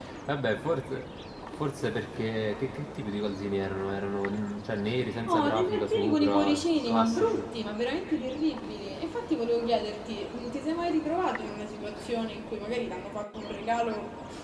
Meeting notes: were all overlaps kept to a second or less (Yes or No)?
No